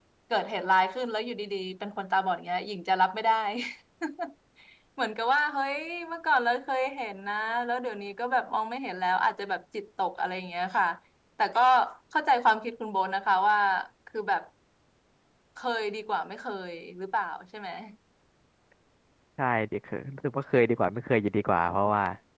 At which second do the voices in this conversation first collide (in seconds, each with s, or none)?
none